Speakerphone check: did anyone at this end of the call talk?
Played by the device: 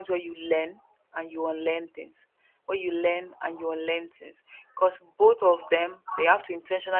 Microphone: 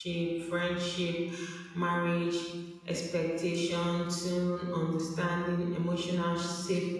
Yes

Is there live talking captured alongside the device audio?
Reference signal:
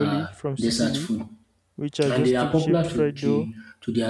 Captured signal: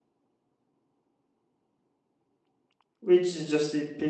Yes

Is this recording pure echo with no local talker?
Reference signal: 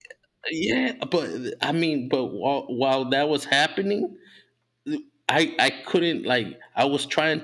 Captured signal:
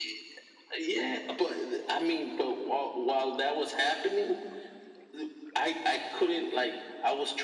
Yes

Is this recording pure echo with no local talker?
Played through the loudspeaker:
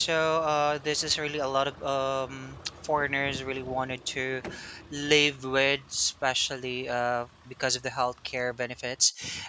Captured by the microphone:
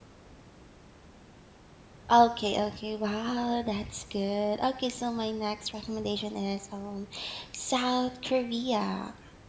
No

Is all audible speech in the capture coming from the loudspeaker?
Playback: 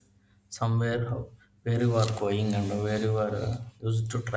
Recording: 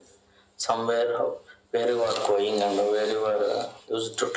Yes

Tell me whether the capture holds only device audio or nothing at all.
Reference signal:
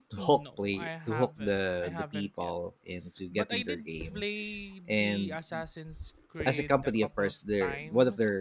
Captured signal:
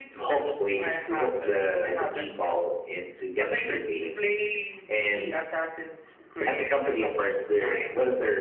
No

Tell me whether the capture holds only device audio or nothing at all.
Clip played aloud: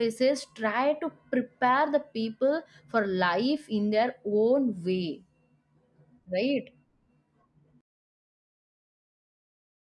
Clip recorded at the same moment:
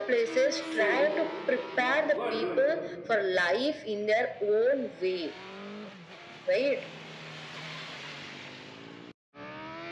No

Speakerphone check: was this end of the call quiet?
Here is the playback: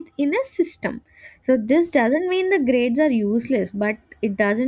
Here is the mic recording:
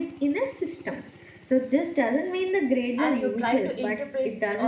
No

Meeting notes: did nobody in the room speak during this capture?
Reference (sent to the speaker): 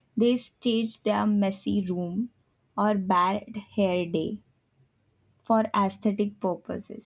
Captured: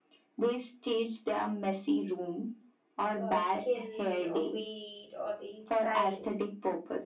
No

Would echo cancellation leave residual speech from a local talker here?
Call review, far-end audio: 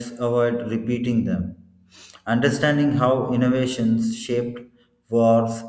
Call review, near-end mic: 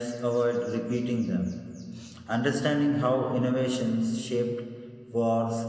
No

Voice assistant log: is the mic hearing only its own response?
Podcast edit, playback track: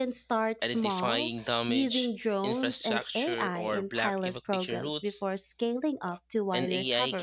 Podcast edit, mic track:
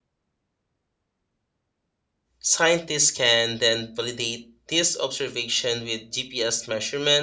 No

